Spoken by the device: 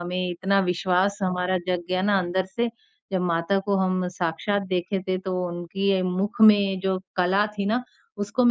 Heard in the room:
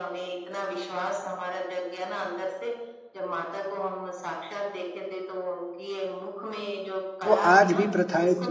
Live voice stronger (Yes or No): Yes